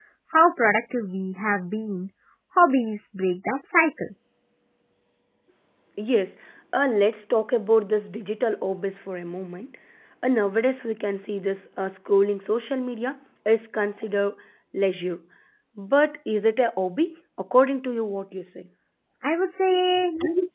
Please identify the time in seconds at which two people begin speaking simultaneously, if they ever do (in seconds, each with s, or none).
none